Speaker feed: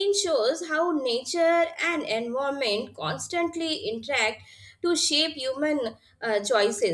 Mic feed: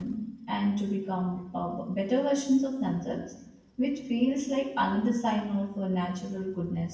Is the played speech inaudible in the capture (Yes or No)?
Yes